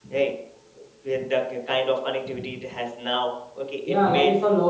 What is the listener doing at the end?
taking over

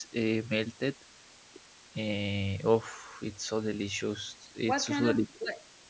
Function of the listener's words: taking over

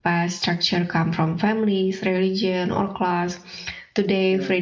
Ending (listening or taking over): listening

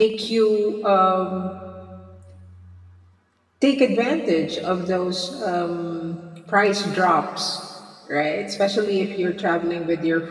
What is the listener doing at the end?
listening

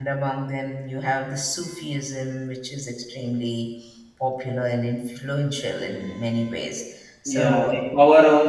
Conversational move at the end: taking over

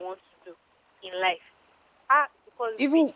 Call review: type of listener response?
taking over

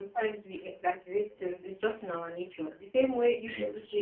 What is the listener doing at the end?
listening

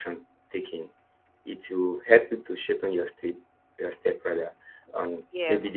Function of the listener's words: taking over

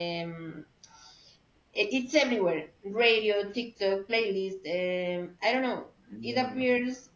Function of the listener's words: listening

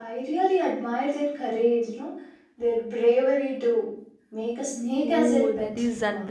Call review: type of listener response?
taking over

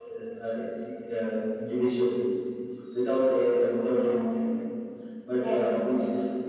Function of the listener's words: listening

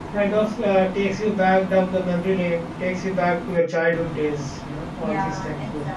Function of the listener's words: taking over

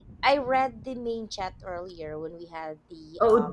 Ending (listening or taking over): taking over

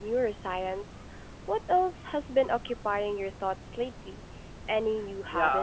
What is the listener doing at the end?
taking over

